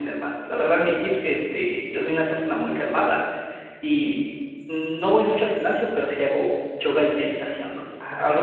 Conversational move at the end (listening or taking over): listening